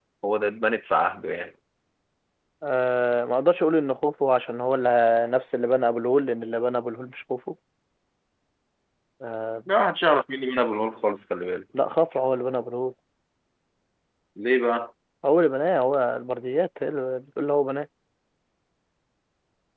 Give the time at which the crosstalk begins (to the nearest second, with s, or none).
none